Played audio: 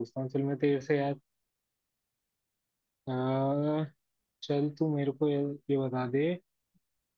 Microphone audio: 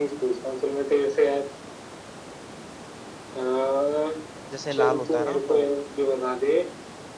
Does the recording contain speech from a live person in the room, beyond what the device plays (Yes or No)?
Yes